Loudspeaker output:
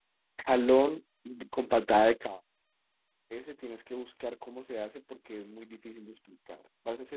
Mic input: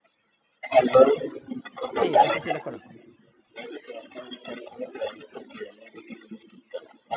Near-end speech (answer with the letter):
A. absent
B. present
B